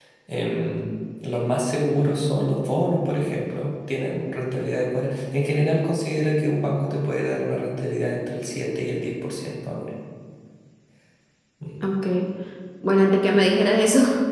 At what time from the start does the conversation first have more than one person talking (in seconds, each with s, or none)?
none